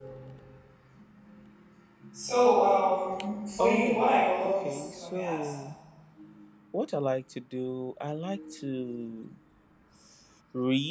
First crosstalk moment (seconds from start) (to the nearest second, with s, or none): 4 s